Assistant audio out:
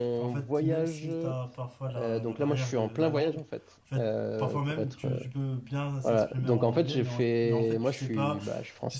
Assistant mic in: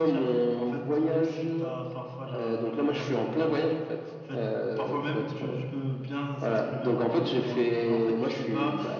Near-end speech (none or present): none